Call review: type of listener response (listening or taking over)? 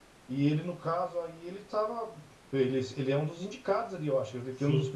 listening